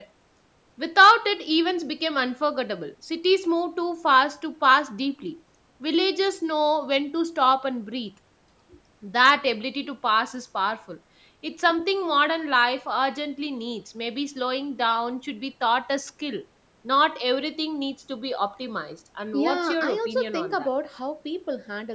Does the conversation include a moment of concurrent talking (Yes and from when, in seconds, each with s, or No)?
Yes, from 19.3 s